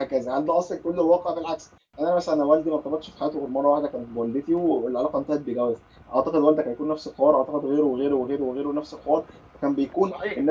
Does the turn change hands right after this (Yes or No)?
No